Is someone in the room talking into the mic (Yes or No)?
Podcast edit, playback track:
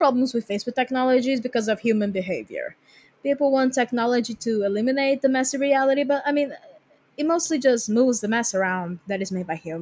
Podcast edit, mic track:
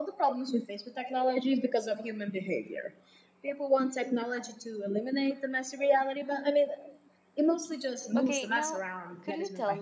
Yes